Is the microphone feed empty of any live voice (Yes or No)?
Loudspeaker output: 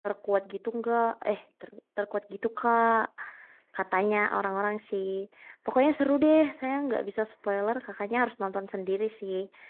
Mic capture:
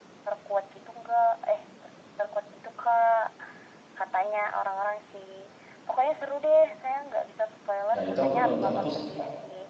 No